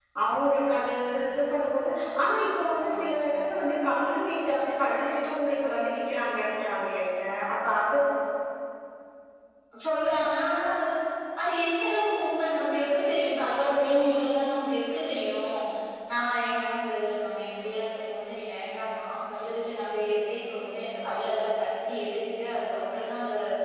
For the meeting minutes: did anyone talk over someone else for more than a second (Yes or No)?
No